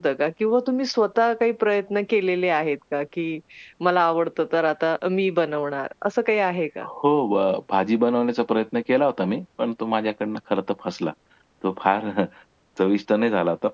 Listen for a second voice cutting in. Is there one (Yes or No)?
No